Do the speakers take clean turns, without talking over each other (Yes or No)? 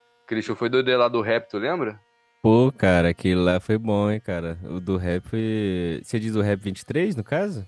Yes